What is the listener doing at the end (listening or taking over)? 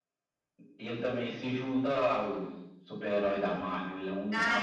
taking over